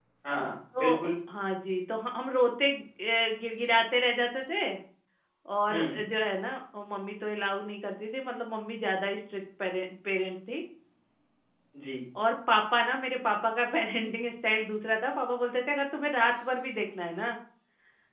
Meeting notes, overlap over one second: none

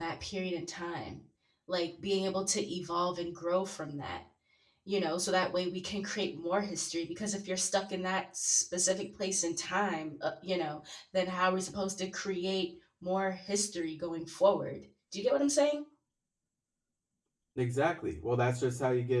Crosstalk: none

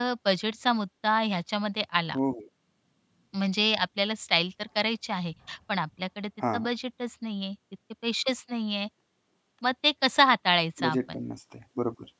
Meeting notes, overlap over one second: none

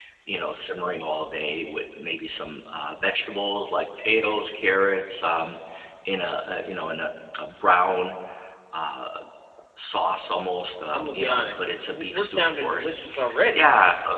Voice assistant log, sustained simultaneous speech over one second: present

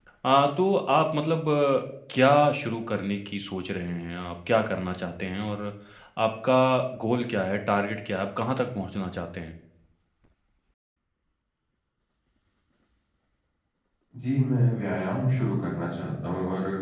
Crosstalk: none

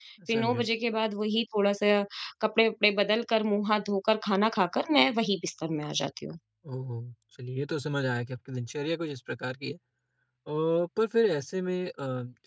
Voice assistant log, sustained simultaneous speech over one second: none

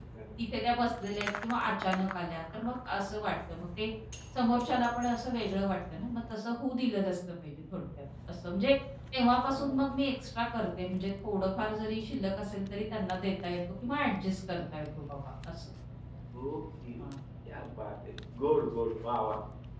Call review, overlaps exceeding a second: none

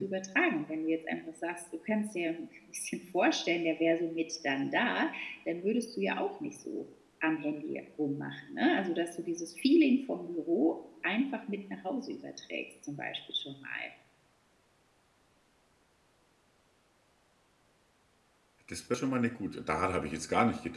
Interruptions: none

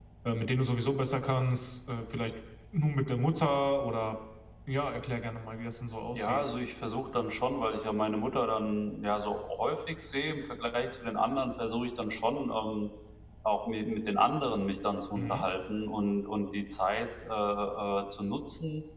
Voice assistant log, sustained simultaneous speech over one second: none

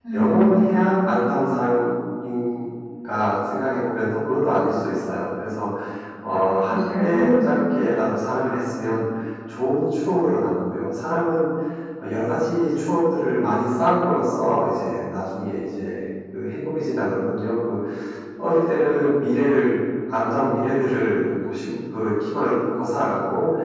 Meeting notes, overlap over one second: present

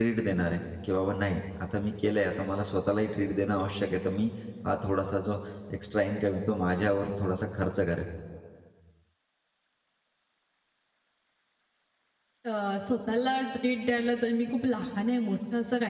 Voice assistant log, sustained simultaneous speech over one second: none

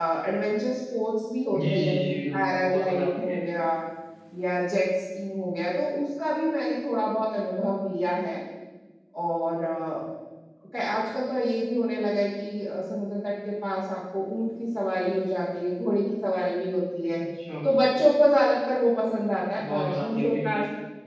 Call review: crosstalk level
present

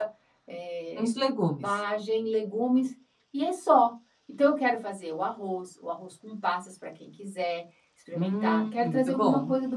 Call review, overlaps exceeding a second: present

